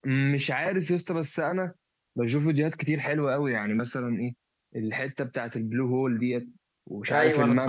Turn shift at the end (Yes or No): Yes